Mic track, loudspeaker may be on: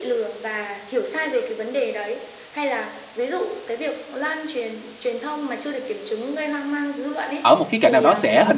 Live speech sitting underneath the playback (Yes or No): No